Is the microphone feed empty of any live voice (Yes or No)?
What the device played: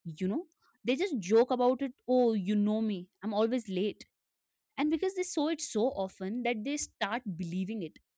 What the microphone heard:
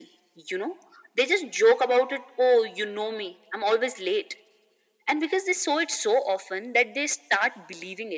Yes